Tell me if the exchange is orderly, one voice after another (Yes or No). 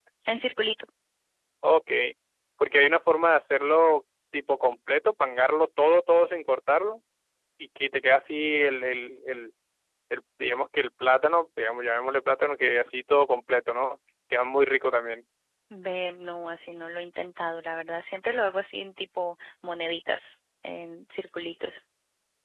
Yes